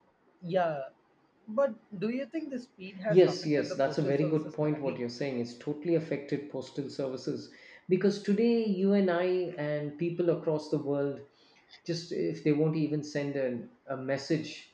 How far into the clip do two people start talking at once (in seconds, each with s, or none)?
3.1 s